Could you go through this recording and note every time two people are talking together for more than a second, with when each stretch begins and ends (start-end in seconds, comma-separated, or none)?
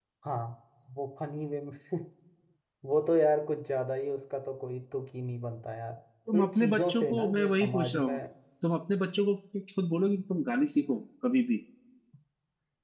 6.4-8.1